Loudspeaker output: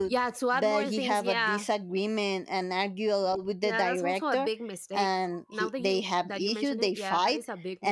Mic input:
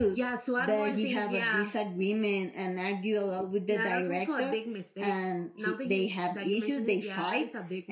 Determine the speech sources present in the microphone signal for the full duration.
echo only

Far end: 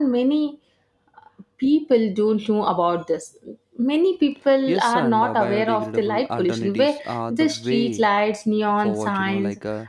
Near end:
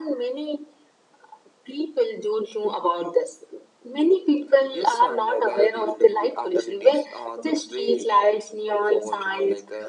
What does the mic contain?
echo only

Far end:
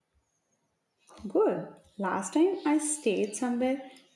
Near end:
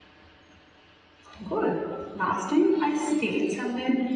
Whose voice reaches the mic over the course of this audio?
echo only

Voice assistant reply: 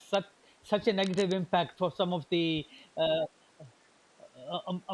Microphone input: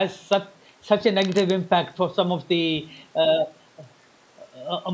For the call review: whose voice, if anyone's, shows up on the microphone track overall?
echo only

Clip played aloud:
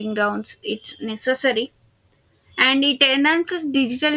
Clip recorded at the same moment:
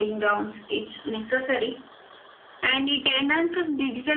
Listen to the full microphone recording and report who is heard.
echo only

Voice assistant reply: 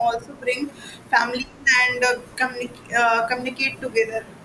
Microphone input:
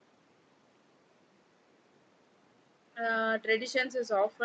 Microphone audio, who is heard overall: user only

